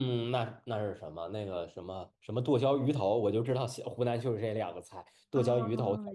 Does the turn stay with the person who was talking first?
No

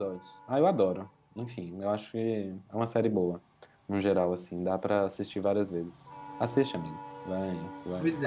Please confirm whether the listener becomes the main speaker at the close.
Yes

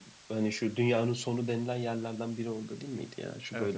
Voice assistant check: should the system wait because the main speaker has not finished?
No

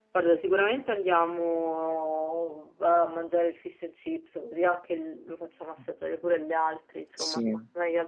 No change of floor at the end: No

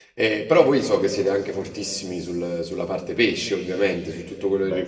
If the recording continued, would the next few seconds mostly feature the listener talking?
No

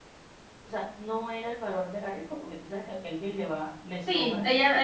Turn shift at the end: Yes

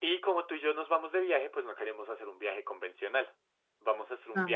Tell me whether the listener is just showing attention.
Yes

